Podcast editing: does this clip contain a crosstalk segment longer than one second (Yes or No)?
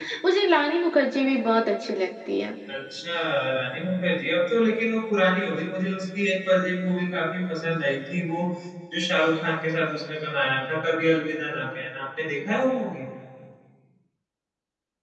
No